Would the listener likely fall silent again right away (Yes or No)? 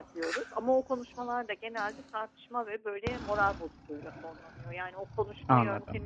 Yes